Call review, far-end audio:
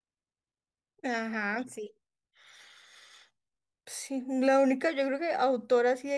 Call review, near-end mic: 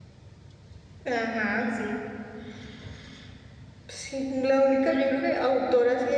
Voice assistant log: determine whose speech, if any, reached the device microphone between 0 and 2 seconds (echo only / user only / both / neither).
echo only